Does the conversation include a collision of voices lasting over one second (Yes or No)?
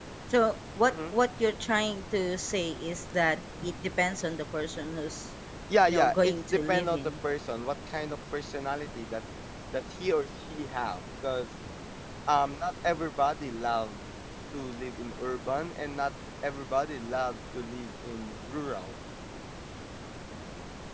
Yes